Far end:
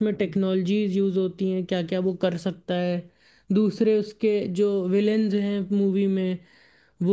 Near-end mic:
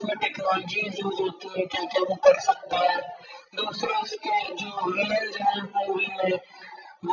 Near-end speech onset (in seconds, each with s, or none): none